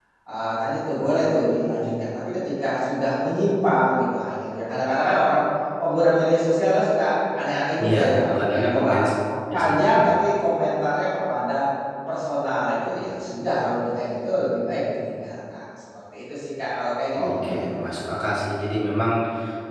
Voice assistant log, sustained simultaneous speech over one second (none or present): present